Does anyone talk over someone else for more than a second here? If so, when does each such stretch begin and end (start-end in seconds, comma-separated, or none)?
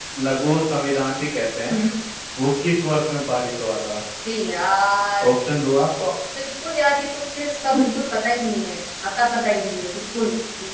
none